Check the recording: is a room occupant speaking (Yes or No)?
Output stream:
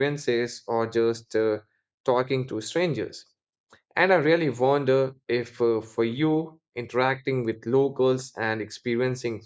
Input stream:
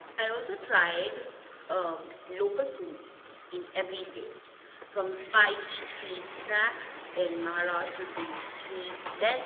Yes